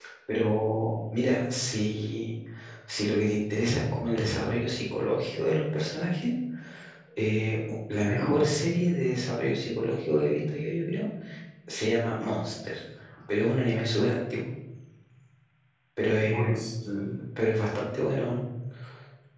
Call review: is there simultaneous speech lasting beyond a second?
No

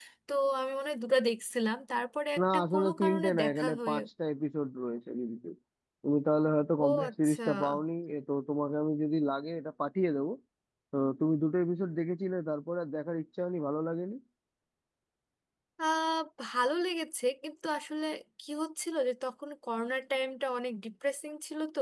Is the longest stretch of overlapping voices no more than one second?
No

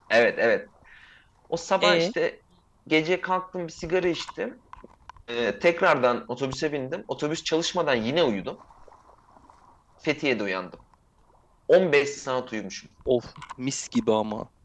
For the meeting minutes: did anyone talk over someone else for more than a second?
No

